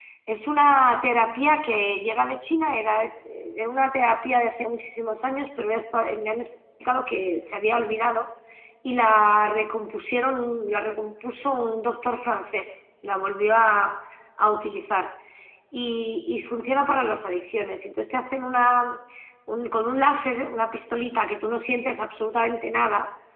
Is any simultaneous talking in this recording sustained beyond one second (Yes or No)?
No